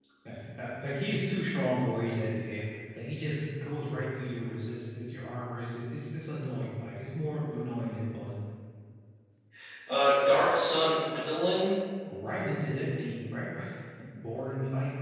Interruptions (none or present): none